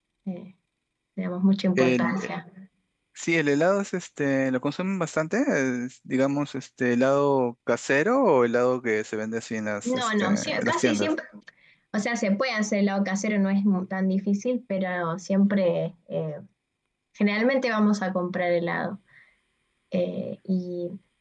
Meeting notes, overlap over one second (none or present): present